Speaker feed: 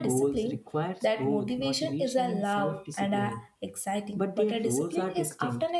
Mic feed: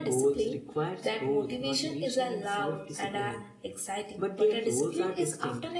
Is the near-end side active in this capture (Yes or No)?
No